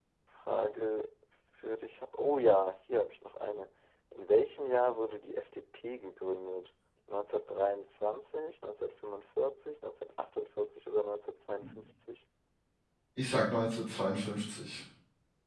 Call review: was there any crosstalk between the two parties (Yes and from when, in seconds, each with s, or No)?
No